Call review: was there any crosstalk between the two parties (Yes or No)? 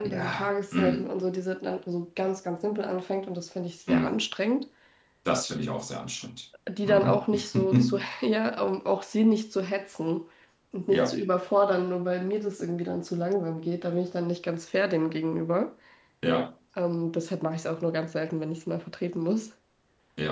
Yes